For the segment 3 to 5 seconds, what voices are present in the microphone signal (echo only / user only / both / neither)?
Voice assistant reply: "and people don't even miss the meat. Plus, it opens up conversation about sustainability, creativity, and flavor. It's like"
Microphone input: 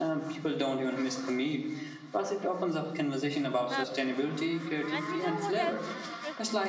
both